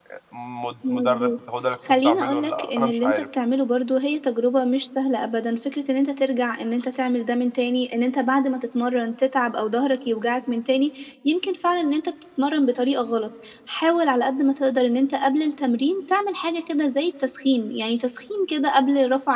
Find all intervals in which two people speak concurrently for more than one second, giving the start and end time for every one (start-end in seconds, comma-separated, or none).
1.9-3.2